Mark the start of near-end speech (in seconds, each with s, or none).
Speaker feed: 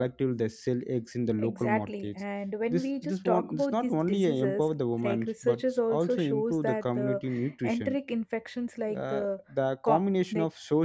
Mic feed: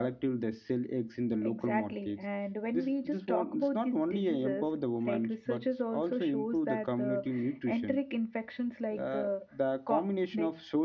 none